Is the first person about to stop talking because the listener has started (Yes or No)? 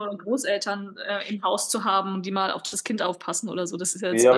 Yes